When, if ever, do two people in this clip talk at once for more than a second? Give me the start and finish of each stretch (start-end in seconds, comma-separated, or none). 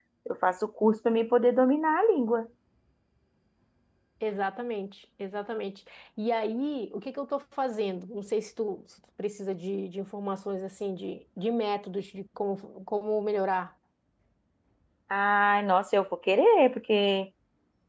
none